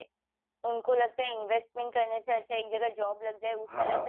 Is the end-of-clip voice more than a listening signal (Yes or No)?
No